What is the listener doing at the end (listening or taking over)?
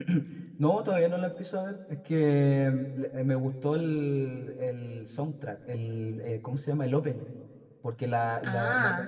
listening